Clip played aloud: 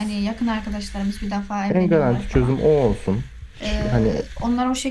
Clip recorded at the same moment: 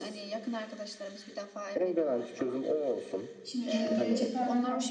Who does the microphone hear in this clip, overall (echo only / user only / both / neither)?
both